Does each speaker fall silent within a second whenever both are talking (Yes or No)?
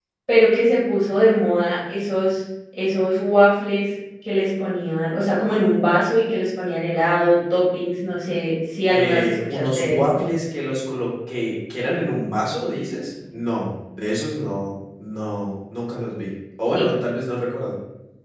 No